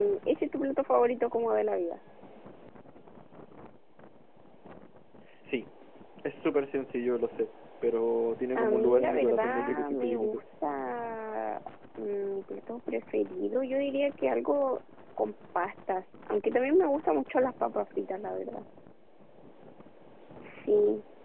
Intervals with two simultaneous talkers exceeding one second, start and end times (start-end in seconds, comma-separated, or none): 8.6-10.4